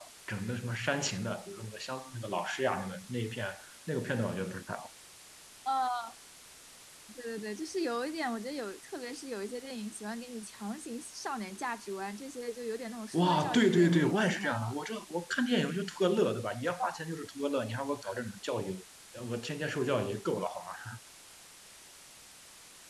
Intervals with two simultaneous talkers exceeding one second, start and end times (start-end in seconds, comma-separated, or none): 13.1-14.8